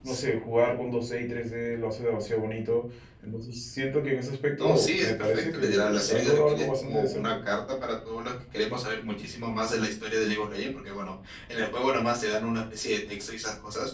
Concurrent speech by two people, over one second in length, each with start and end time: 4.6-7.4

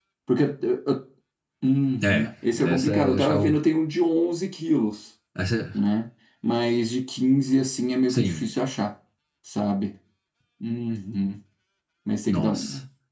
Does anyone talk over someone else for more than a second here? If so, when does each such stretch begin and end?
2.0-3.5

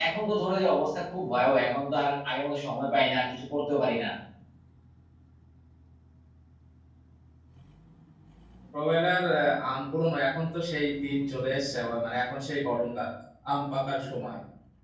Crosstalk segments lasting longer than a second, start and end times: none

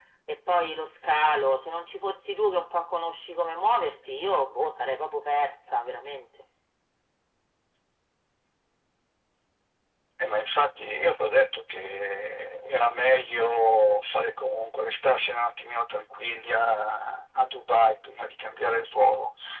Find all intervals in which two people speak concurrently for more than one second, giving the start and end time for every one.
none

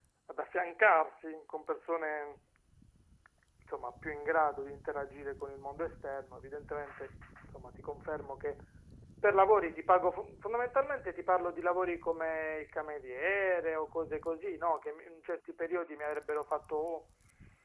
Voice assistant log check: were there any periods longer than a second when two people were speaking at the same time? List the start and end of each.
none

